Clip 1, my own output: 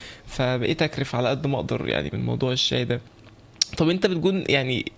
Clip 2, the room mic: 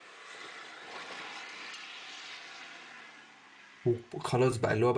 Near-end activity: present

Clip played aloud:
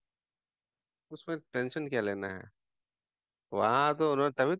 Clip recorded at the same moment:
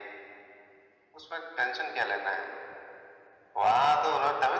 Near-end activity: none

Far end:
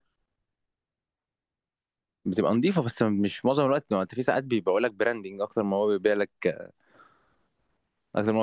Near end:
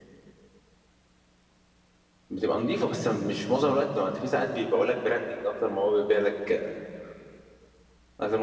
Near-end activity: none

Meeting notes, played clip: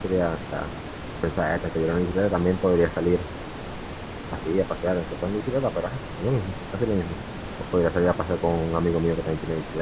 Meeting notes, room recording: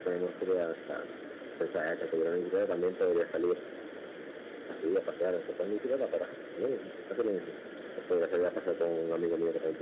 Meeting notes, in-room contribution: none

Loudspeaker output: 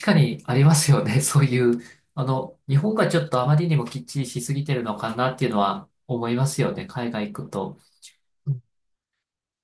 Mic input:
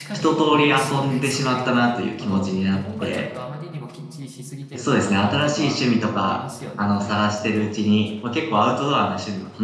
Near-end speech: present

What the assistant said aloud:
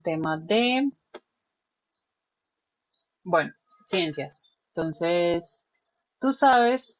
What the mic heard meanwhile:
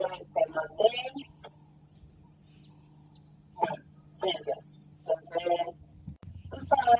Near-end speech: none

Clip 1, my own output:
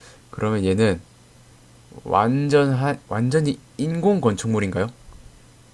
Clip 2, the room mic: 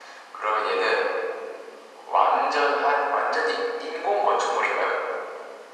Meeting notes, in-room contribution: none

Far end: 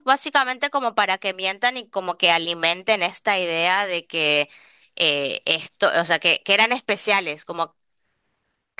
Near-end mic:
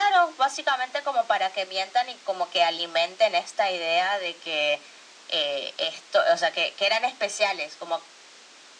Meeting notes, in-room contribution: none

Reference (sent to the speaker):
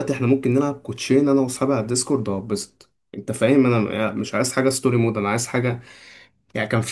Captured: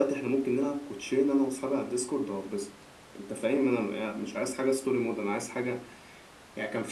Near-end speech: none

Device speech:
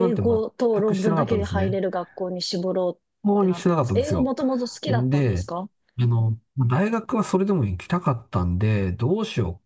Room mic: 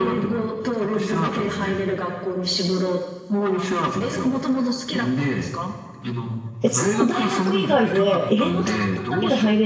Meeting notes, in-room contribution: present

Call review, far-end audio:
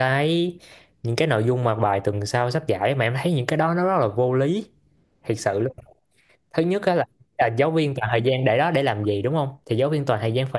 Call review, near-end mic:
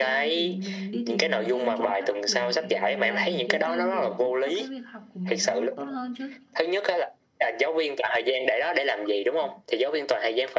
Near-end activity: present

